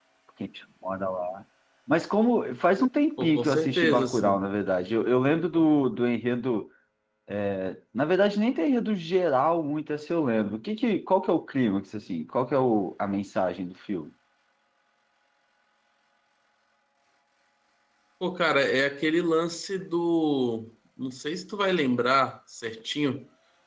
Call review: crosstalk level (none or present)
present